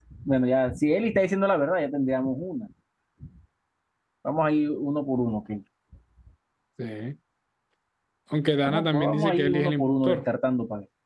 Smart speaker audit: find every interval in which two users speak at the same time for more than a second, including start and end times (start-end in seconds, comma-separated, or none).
8.6-10.2